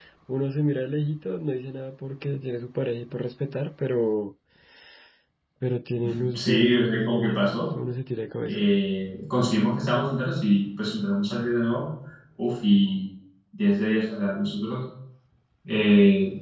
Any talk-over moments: Yes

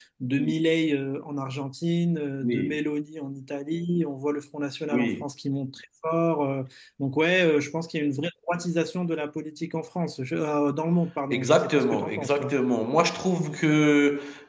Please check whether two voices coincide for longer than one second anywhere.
Yes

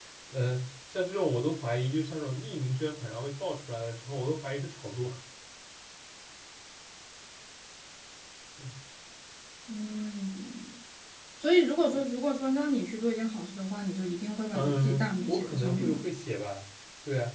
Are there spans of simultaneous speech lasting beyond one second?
Yes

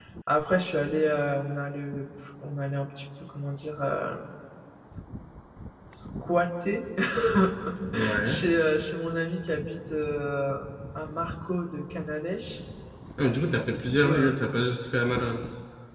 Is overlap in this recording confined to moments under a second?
Yes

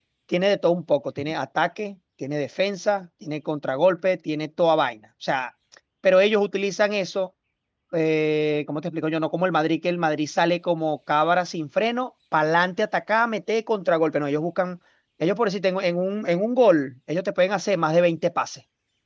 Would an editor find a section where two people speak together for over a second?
No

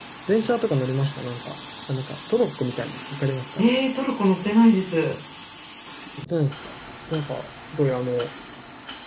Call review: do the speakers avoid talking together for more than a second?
Yes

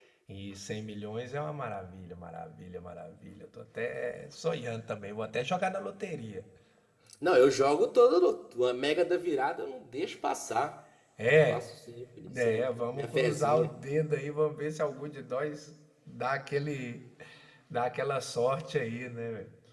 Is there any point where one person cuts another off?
Yes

